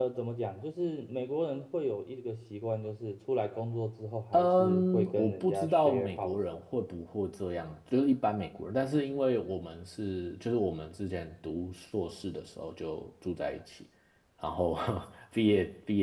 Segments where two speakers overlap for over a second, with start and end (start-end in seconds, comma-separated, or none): 4.3-6.4